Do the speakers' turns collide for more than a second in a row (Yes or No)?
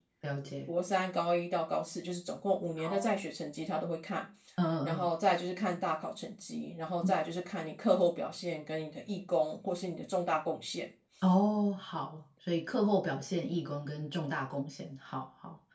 No